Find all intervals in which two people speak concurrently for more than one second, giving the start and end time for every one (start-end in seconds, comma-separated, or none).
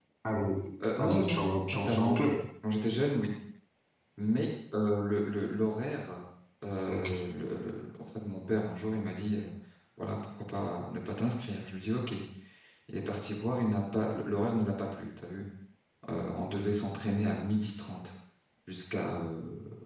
1.0-2.2